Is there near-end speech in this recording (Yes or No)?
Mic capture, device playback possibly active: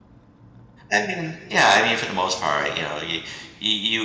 Yes